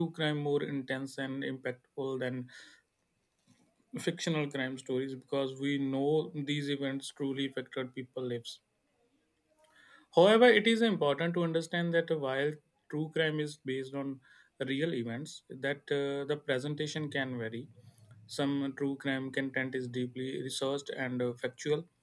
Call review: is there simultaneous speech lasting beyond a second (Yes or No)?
No